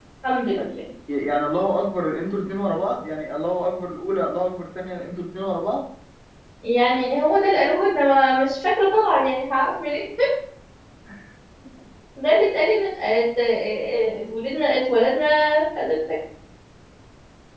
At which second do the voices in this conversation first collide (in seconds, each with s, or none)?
none